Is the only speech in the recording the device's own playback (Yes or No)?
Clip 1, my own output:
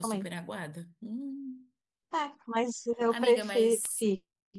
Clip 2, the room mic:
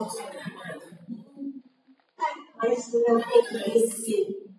Yes